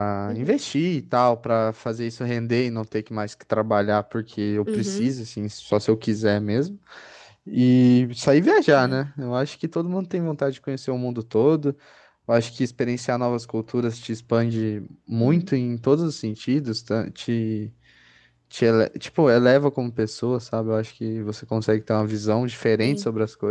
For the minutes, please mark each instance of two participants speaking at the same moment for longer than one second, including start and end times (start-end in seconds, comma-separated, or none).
none